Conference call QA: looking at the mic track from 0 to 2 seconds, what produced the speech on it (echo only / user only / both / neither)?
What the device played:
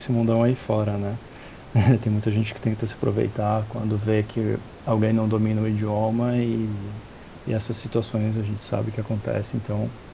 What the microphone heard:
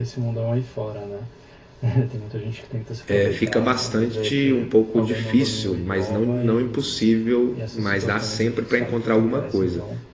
echo only